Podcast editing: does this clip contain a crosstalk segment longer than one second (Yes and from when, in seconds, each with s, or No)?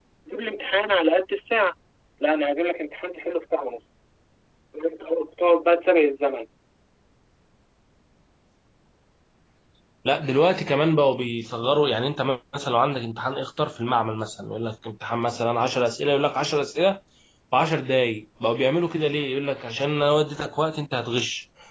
No